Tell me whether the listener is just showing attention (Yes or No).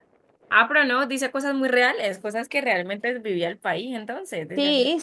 No